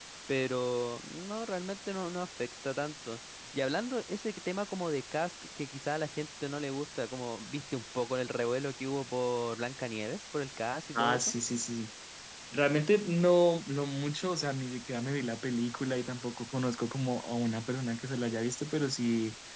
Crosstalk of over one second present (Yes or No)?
No